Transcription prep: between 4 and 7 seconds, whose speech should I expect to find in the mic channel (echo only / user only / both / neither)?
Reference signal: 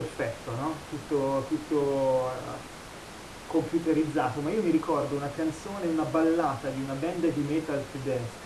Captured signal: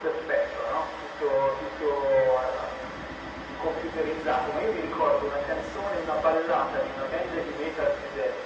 echo only